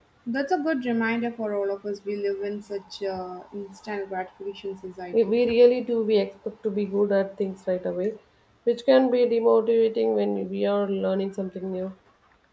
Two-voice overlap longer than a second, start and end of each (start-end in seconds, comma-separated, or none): none